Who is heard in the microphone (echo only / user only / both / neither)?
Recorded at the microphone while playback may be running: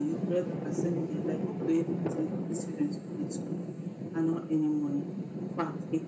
echo only